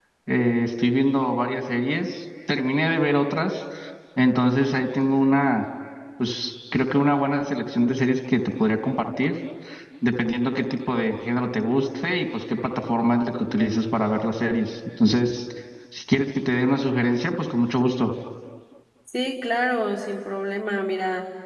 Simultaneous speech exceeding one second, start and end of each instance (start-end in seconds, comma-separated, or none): none